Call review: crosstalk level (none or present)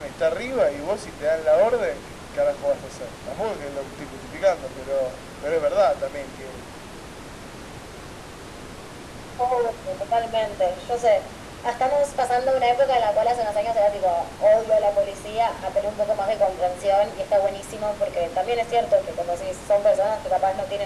none